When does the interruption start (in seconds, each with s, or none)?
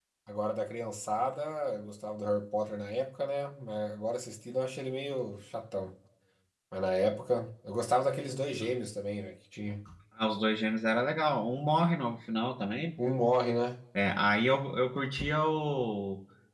none